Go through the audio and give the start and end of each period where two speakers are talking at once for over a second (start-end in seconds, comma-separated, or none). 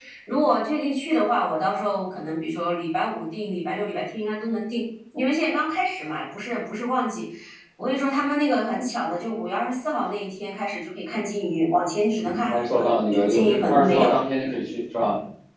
12.2-14.1